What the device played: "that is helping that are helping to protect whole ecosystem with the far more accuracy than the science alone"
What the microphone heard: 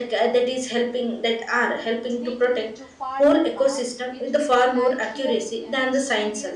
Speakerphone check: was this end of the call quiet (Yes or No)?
No